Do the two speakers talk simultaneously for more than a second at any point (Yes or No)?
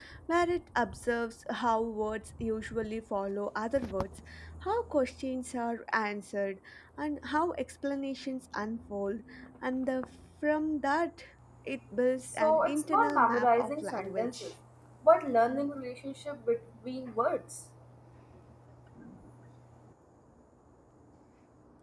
Yes